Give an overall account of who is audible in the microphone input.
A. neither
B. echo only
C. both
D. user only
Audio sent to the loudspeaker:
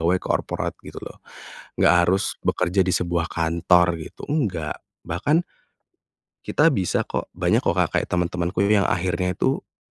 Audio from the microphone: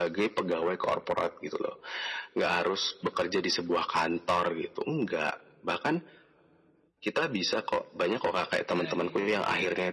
C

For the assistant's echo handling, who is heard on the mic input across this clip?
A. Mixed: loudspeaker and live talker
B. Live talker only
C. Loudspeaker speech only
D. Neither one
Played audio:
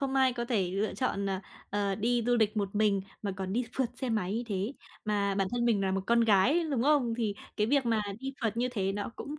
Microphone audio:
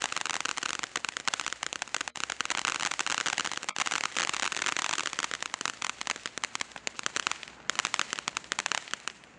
D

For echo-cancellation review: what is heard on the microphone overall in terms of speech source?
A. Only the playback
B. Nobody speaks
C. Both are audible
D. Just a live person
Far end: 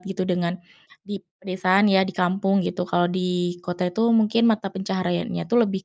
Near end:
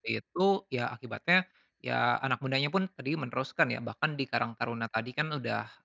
D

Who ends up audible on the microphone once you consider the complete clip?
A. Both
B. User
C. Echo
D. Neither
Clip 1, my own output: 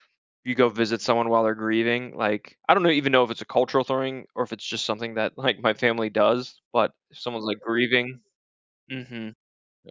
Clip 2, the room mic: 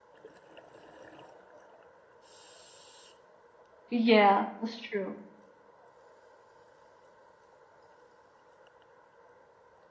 B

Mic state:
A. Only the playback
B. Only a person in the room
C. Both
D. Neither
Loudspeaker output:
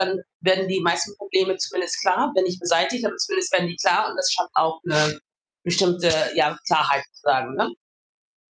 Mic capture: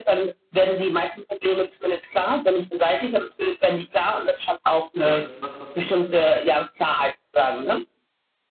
C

